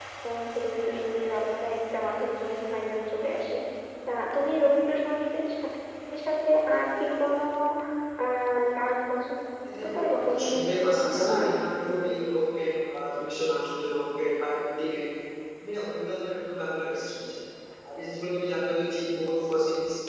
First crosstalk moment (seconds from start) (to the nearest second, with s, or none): 10 s